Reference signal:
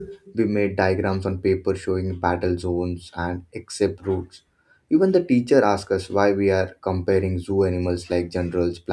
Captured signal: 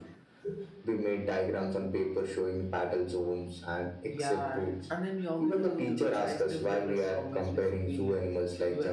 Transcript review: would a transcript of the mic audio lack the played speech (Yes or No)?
No